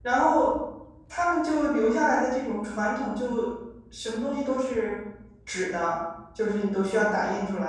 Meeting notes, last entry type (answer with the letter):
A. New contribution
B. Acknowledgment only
B